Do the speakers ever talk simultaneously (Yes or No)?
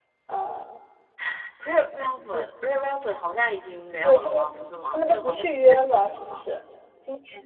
Yes